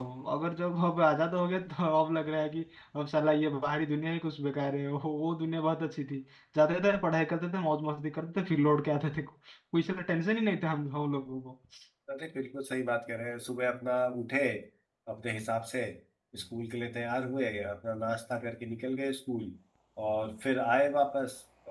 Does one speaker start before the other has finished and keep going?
No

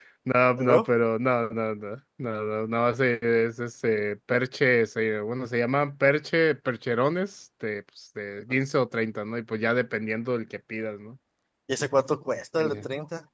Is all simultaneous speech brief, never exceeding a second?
Yes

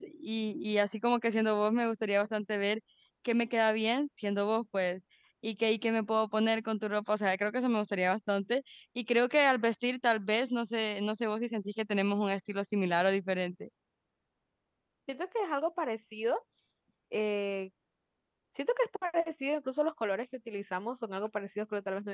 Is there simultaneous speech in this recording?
No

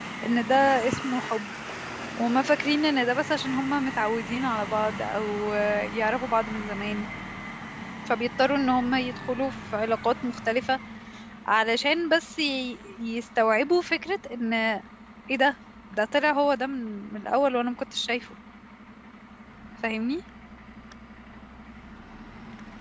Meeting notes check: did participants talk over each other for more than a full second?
No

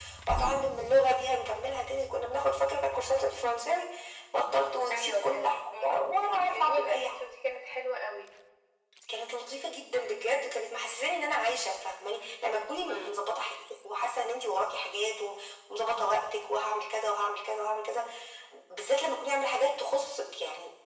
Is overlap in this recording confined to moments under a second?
No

